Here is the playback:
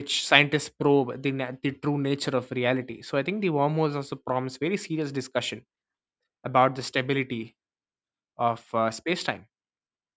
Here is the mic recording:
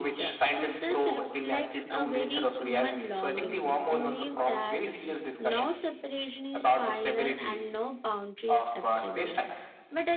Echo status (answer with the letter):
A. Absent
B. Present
B